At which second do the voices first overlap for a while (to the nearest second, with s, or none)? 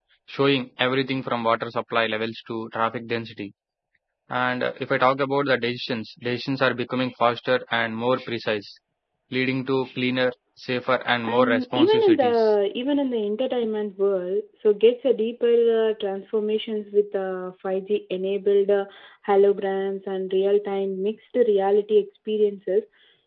11 s